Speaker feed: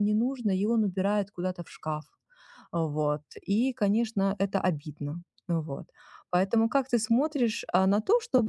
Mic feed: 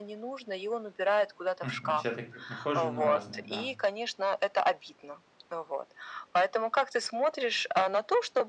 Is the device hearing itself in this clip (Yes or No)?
Yes